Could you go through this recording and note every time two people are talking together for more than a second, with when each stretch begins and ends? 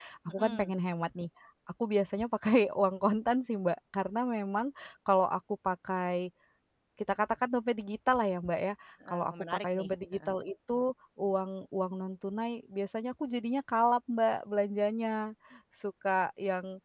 9.1-10.3

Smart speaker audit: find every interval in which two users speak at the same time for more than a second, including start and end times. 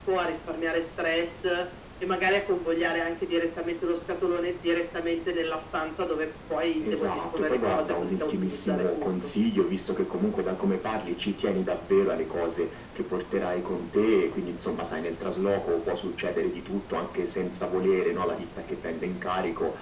6.8-9.0

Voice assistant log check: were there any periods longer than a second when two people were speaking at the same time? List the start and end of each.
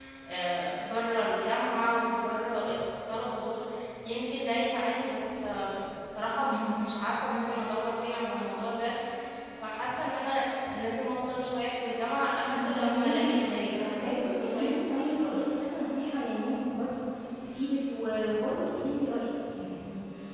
12.5-15.0

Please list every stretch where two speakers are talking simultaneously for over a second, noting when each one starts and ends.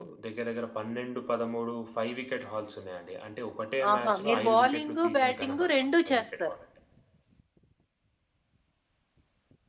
3.9-6.5

